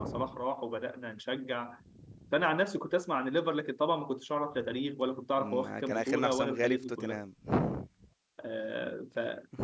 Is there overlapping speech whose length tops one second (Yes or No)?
Yes